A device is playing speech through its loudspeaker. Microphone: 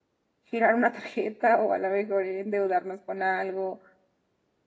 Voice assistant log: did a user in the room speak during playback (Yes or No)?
Yes